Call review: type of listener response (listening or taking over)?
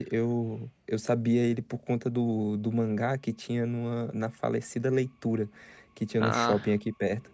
listening